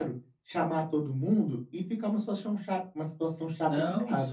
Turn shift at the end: Yes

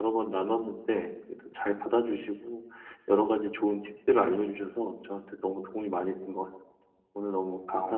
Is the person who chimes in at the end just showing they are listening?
No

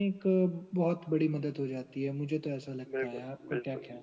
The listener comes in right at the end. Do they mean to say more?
Yes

